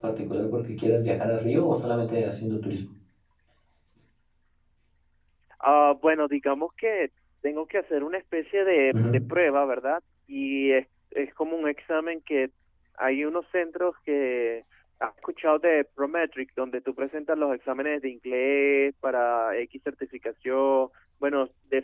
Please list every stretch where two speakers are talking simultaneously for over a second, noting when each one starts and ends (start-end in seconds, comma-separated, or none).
none